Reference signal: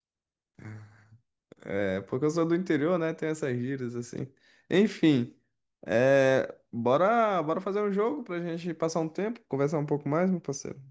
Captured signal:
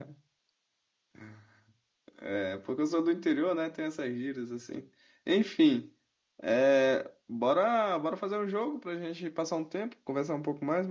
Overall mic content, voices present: echo only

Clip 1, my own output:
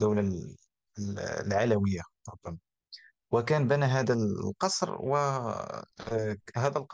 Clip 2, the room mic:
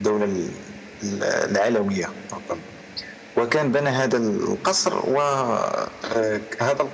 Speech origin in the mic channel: echo only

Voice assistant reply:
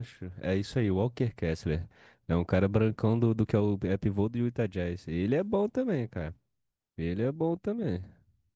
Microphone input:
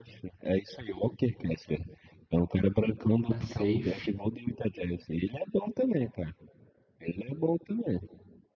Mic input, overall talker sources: both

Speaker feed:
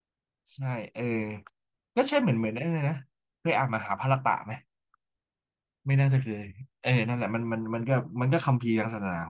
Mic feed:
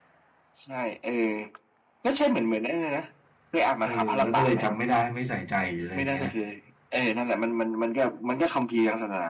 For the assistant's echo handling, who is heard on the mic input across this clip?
both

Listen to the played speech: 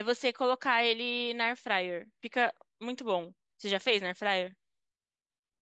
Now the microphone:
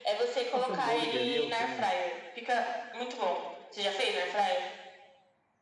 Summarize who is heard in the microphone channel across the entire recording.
both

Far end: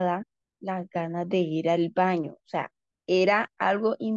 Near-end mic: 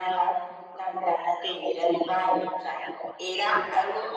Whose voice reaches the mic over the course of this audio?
echo only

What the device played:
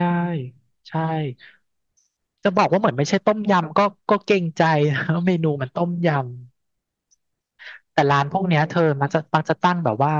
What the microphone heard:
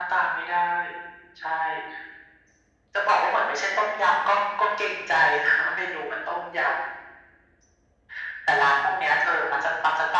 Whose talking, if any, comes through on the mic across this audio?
echo only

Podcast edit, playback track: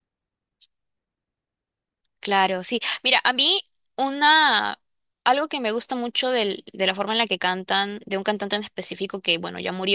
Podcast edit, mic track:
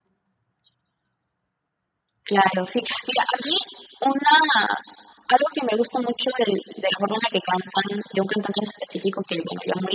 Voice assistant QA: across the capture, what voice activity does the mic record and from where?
echo only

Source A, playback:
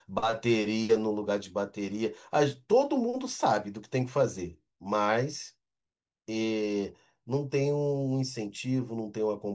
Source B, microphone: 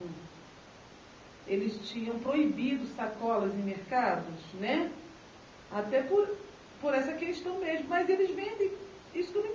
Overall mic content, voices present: user only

